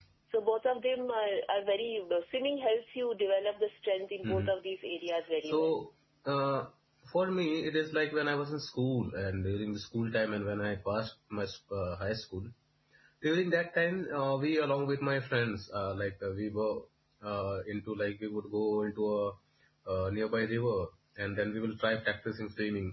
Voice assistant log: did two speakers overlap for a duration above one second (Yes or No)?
No